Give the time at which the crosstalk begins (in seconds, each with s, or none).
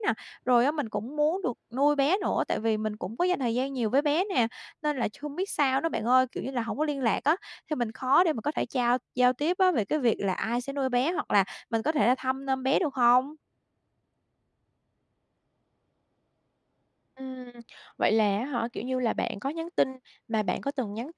none